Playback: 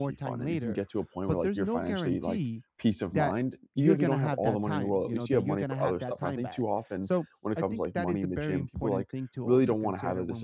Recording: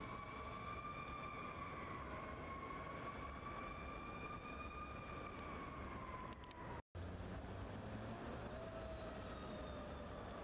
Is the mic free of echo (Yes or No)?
Yes